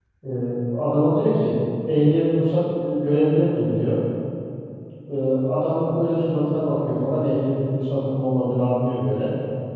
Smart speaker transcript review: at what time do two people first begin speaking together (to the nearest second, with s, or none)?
none